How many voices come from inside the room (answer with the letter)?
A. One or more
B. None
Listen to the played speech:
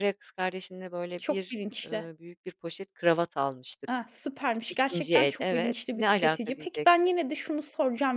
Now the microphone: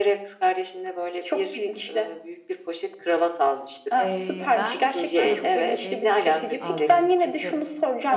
A